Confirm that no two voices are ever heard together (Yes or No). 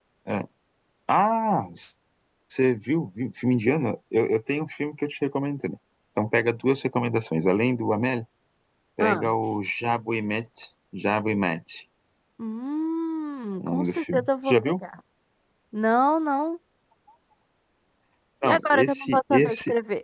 No